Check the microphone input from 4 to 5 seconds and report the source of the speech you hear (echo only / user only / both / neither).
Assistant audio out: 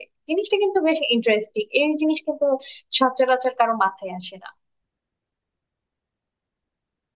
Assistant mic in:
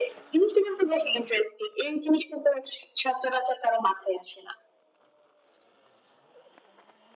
echo only